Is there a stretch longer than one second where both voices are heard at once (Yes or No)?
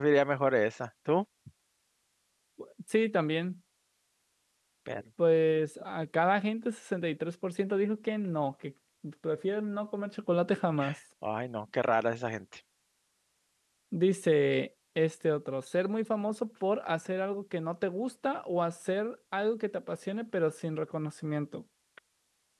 No